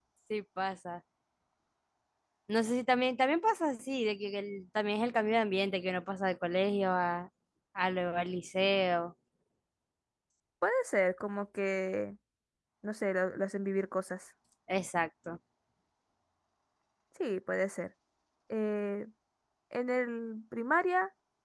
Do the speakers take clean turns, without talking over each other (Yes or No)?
Yes